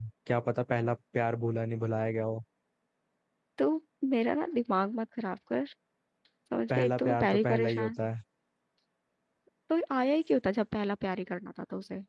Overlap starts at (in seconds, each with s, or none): 6.8 s